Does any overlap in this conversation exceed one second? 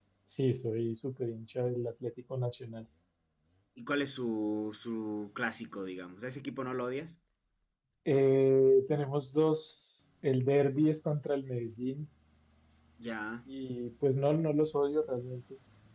No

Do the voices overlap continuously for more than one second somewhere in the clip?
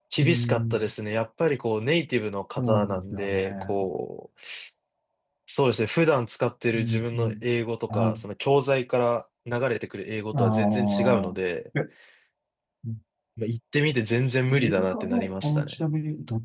Yes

